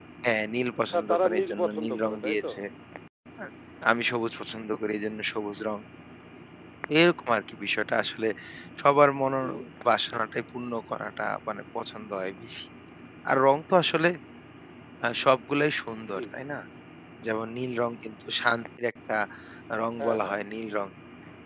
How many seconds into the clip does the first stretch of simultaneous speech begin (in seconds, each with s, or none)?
0.9 s